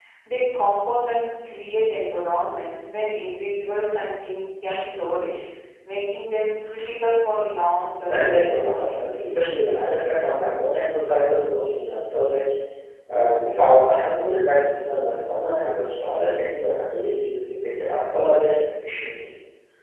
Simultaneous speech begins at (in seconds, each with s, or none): 8.1 s